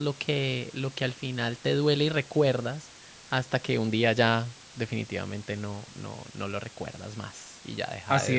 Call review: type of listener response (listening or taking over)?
taking over